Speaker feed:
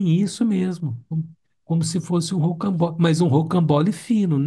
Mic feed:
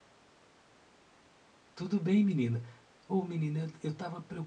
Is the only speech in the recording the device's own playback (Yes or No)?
No